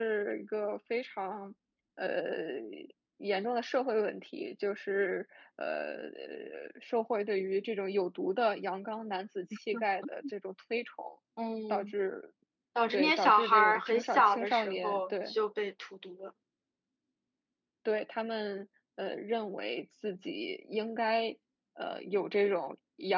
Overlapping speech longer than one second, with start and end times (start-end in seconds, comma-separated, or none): 12.9-15.3